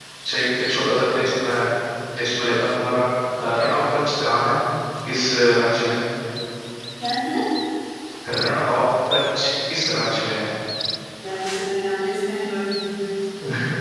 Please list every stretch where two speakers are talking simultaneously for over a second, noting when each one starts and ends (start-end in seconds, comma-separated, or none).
none